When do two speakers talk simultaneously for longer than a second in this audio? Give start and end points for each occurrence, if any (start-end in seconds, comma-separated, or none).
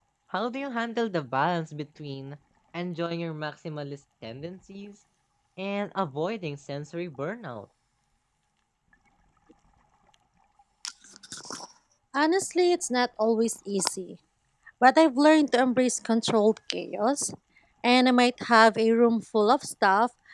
none